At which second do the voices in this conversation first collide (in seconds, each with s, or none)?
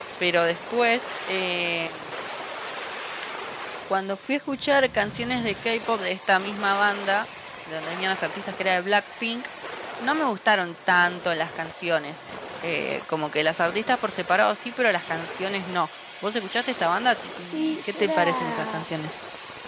17.5 s